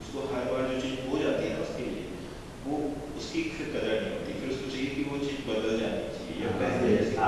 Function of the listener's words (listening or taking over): taking over